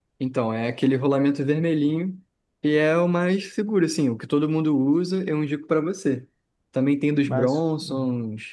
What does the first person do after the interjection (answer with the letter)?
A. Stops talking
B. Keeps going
B